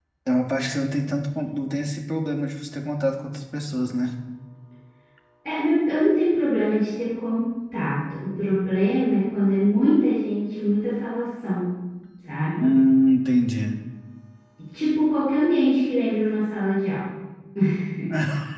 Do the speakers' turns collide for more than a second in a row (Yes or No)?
No